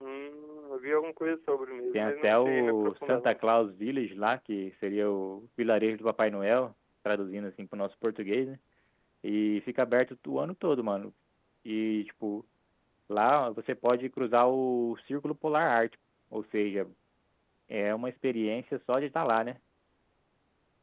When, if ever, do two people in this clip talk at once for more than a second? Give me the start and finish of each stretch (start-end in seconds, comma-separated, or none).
1.9-3.4